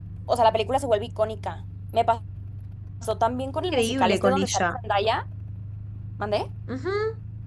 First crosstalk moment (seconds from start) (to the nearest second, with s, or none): 4 s